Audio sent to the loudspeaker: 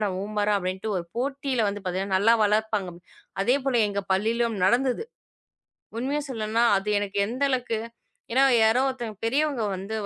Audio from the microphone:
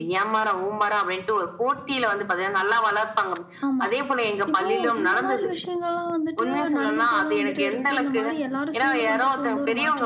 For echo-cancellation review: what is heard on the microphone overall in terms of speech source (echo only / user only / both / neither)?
both